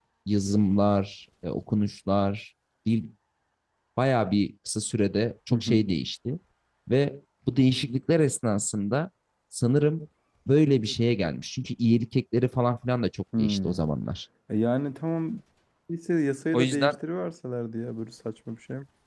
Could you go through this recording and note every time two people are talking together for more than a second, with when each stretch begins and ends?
none

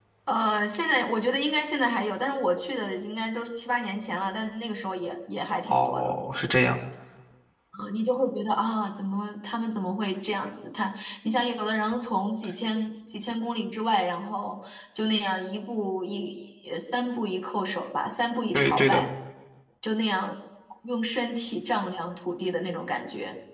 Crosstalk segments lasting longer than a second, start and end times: none

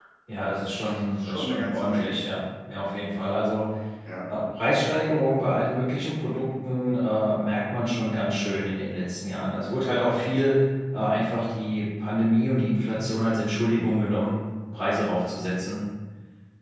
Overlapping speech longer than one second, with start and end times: 0.6-2.2

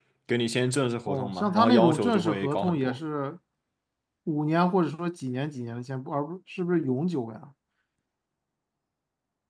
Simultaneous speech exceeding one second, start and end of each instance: 1.1-3.0

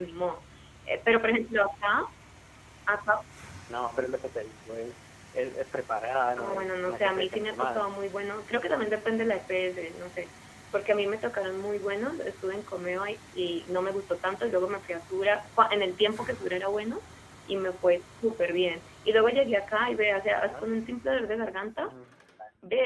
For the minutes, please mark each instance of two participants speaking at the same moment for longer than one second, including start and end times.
6.4-7.9

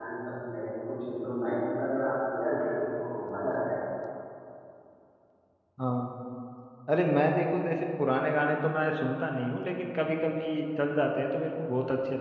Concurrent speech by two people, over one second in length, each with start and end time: none

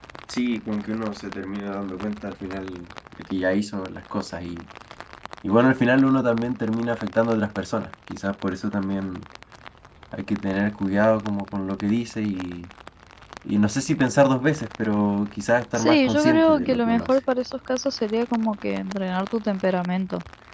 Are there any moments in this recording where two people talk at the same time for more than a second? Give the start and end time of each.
15.8-17.2

